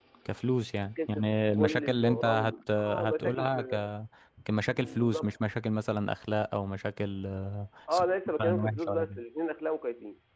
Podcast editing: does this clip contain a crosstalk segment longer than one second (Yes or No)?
Yes